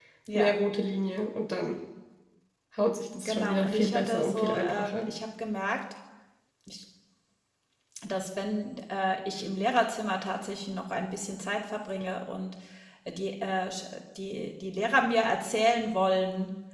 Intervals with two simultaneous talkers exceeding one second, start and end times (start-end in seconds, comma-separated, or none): 3.2-5.1